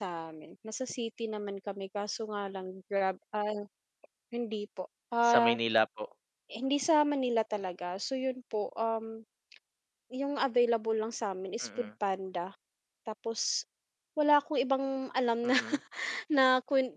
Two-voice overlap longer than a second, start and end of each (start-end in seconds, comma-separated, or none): none